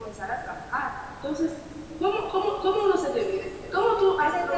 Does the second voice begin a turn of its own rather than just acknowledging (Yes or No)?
Yes